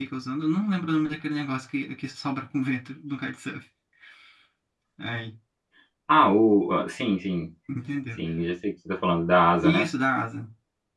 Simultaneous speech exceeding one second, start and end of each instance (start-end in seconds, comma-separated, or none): none